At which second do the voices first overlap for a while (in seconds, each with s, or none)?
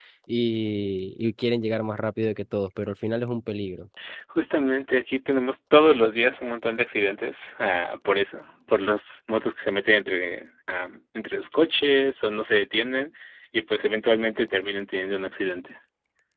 none